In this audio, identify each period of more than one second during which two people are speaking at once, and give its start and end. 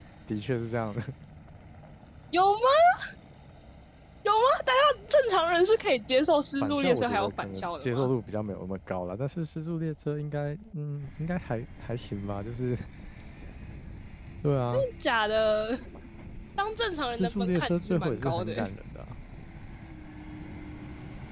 6.6-8.1, 17.1-18.6

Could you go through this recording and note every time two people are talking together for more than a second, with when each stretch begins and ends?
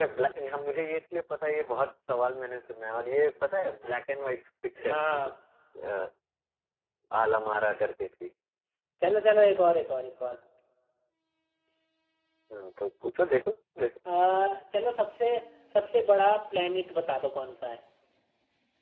none

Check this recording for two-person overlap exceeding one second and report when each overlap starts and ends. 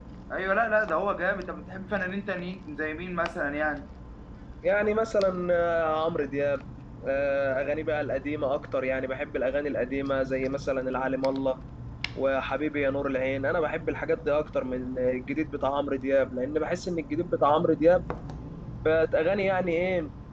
none

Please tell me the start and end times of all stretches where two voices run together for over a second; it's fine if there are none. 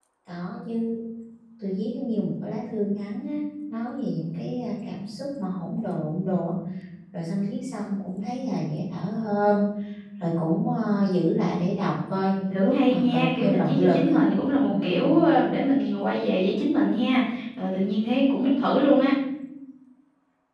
12.5-14.1

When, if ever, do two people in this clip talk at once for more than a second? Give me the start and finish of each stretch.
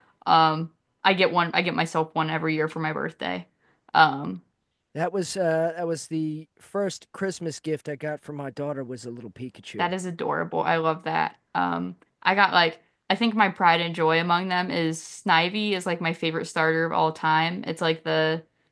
none

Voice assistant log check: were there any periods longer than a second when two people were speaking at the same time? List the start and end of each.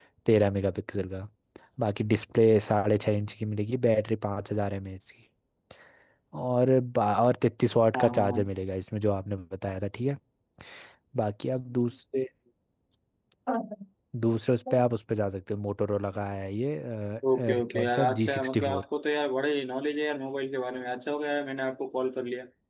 17.4-18.8

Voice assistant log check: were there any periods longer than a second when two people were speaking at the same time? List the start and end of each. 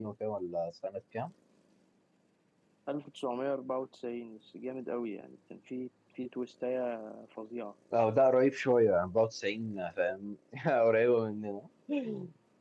none

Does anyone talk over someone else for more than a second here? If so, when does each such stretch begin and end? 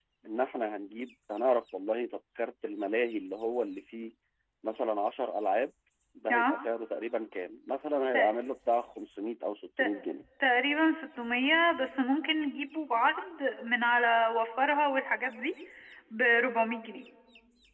none

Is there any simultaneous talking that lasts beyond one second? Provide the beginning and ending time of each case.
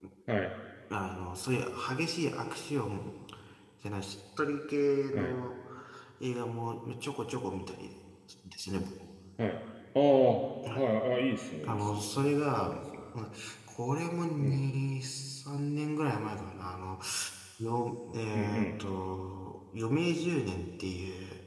none

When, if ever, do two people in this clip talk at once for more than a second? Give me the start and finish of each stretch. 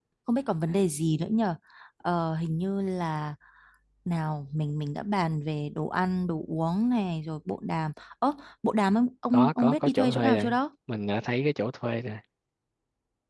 9.3-10.6

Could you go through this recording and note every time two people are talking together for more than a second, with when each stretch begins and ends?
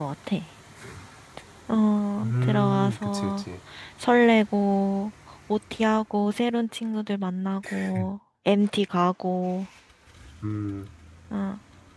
2.2-3.4

